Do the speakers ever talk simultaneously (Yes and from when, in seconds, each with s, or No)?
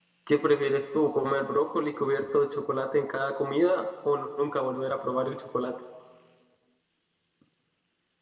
No